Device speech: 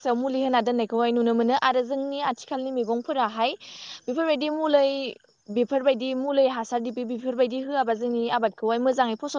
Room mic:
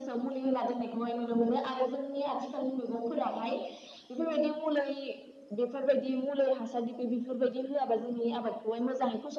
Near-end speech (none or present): none